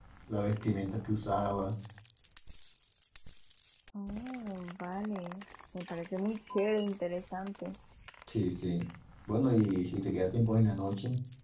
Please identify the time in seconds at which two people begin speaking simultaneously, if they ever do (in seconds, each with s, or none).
none